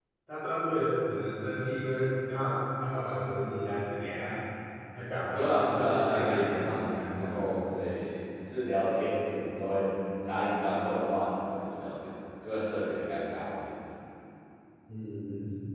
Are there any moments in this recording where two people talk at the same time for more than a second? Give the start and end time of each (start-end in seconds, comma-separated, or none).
5.3-7.4